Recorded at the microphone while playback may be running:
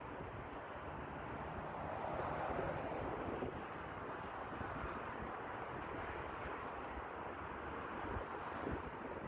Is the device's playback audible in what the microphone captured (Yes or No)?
No